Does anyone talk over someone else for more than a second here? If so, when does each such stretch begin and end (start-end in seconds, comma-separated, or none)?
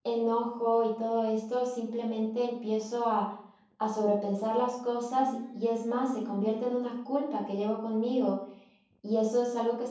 5.1-6.7